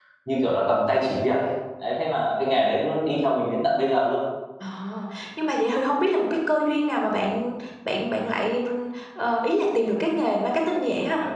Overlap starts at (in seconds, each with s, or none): none